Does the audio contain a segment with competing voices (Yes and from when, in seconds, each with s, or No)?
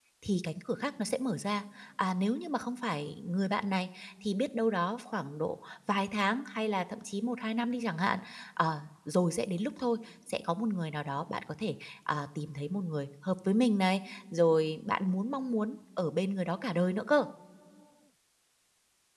No